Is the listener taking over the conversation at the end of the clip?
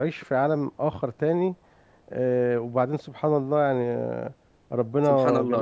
No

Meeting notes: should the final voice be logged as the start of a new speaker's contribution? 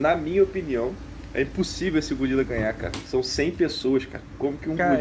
Yes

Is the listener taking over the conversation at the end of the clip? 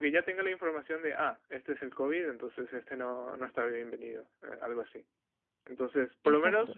No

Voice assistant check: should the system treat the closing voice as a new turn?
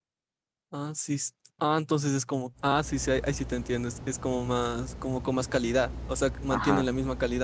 No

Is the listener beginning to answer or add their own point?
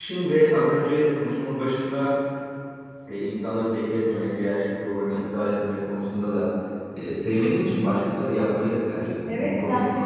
Yes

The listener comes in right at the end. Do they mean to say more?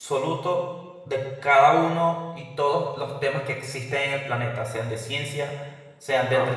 No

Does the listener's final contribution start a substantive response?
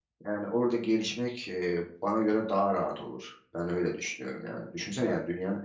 No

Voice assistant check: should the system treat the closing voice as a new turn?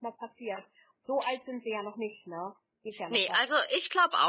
Yes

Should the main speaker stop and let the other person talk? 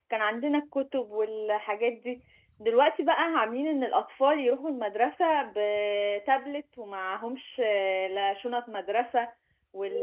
No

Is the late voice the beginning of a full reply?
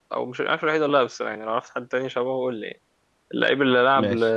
No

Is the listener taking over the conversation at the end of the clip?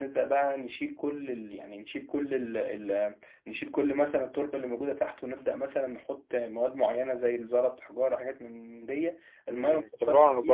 Yes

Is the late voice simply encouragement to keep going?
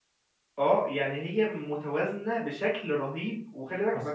No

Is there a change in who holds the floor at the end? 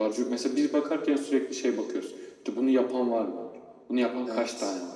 No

